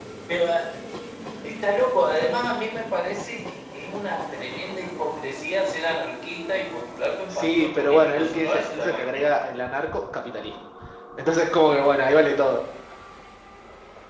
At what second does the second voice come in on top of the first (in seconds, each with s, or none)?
7.3 s